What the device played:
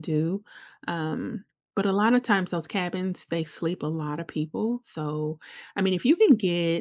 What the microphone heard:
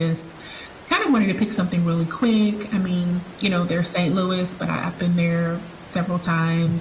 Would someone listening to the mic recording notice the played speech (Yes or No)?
No